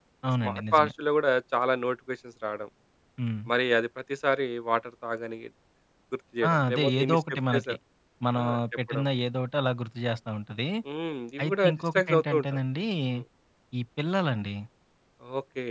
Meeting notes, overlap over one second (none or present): present